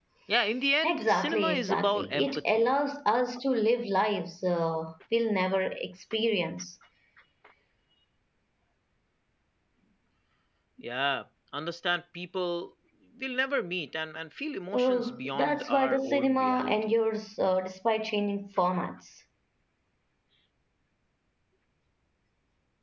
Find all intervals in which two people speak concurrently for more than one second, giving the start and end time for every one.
0.8-2.8, 14.7-17.0

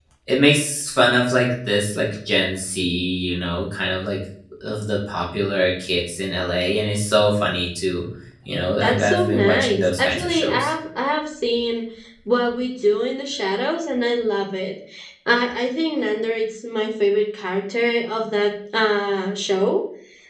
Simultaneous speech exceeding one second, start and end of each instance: 8.8-10.7

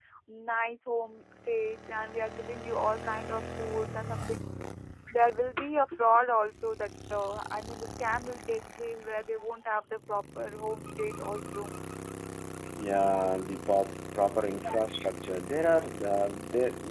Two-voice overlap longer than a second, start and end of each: none

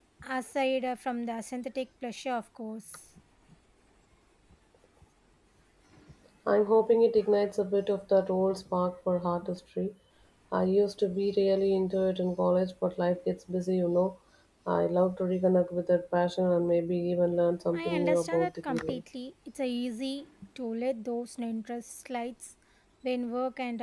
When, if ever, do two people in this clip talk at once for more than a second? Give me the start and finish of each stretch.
17.7-19.0

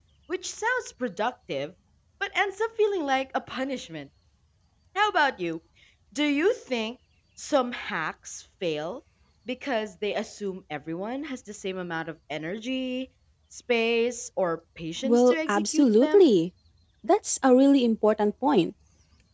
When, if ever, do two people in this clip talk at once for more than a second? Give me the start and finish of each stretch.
15.0-16.2

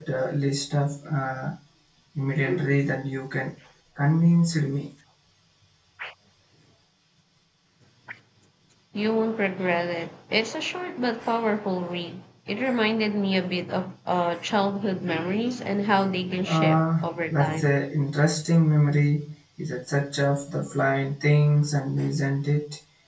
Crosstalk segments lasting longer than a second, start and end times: 16.4-17.7

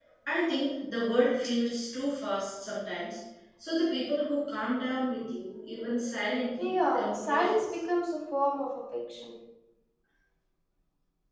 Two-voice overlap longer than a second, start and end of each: 6.6-7.8

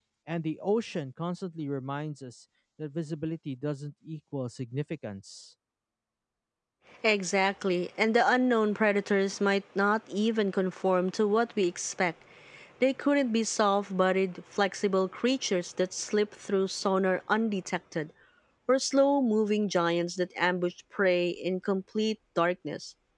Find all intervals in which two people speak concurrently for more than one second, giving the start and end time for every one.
none

